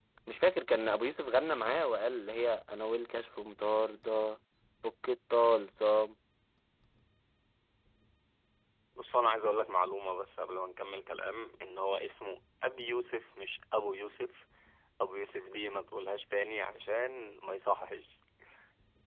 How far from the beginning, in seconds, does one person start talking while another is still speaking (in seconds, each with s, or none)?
none